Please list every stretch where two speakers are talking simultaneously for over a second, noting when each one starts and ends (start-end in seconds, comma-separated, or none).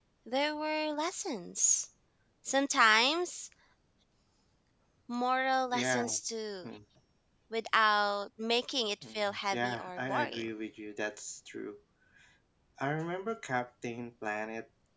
9.0-10.5